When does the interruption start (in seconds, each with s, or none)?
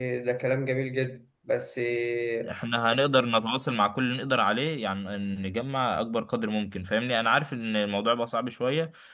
none